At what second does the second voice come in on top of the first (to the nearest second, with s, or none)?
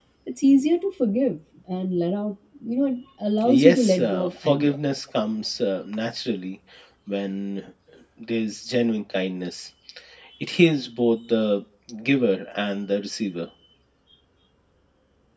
3 s